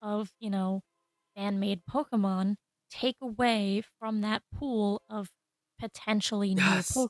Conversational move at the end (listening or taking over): taking over